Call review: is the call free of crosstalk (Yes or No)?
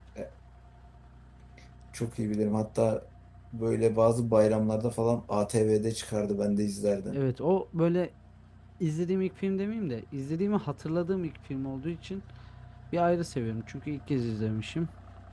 Yes